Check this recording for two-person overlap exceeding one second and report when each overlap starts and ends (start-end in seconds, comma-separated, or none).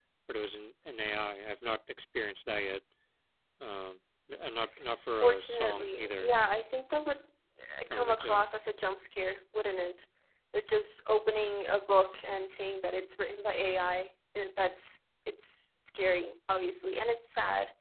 5.1-6.4